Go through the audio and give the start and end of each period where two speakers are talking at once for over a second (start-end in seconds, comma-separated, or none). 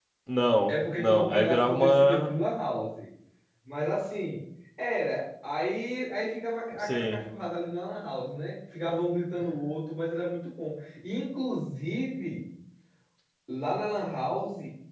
0.7-2.3